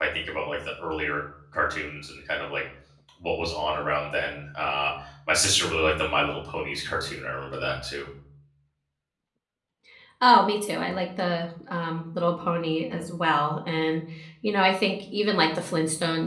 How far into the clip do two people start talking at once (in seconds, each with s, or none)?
none